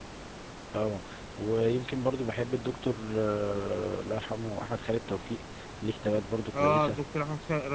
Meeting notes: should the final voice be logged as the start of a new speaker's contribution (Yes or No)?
Yes